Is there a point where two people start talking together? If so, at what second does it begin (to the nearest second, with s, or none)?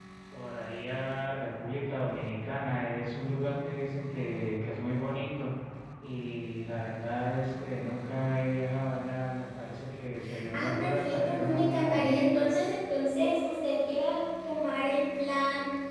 11 s